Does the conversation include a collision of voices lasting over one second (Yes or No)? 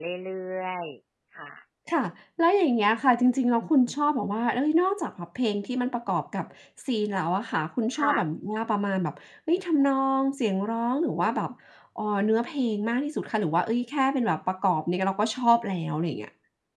No